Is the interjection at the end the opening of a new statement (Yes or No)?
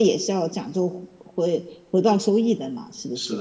Yes